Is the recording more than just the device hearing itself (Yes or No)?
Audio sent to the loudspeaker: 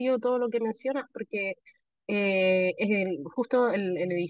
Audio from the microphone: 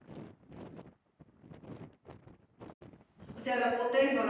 Yes